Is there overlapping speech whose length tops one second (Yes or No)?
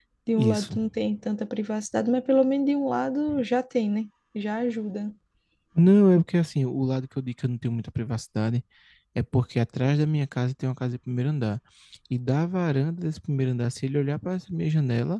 No